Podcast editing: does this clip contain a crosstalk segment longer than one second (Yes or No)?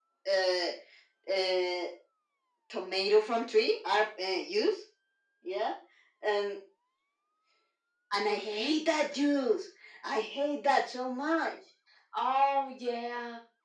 No